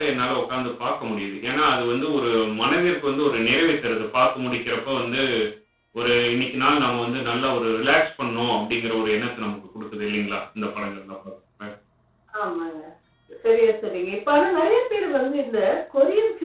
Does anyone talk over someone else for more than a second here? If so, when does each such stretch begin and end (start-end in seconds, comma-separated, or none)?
none